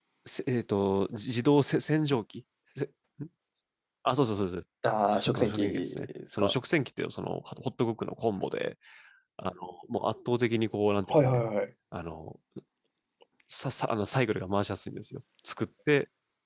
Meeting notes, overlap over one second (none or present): present